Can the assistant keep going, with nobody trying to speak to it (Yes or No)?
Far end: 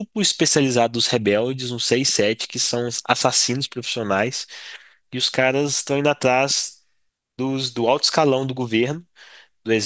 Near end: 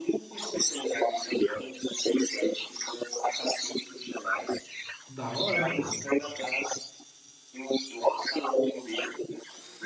No